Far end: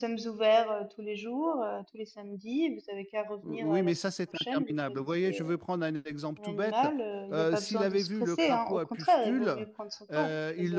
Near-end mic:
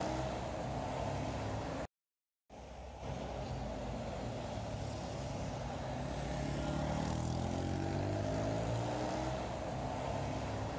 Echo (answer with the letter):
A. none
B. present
A